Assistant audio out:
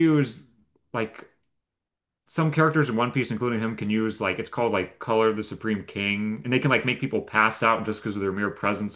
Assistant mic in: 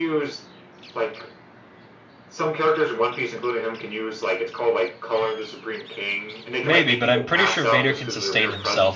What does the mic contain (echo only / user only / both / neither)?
both